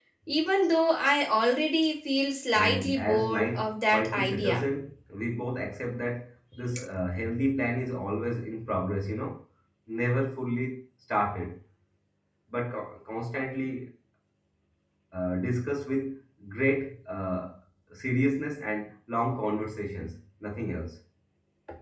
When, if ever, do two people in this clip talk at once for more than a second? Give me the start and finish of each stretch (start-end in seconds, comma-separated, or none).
2.5-4.6